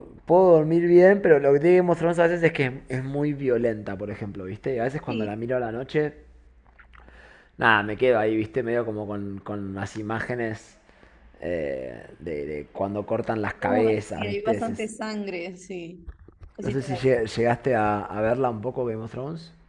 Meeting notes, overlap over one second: present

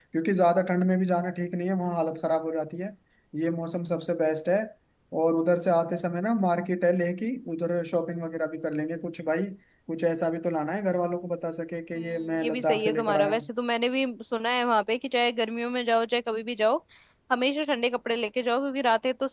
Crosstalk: present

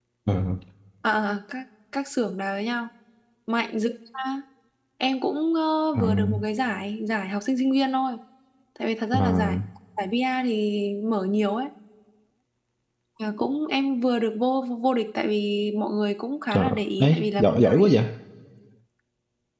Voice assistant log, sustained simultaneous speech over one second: present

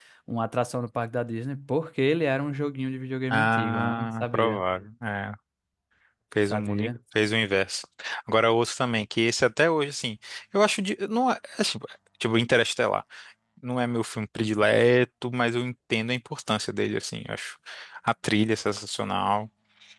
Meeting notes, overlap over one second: present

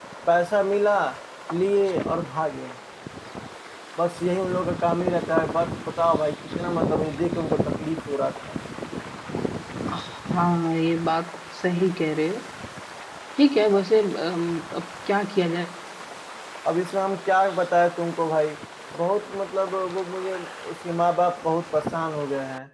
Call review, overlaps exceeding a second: none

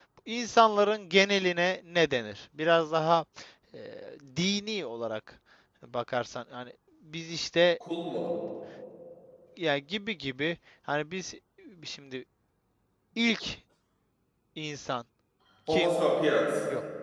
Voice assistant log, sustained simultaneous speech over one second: none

